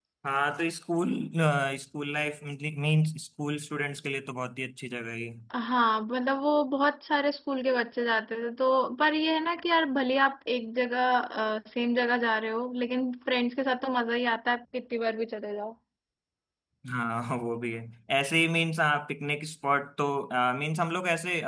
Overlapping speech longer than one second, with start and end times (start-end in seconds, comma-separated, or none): none